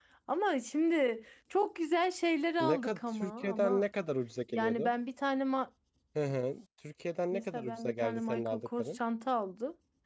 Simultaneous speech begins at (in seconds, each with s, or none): 2.6 s